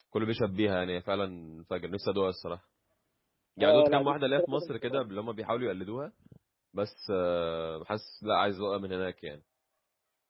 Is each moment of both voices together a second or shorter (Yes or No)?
No